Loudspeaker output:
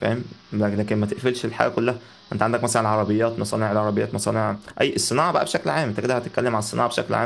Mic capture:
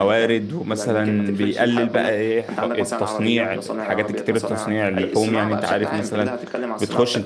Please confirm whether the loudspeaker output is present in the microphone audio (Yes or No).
Yes